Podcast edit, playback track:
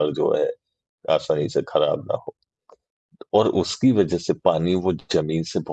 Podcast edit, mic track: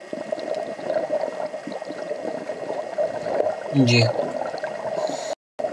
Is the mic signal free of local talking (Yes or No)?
No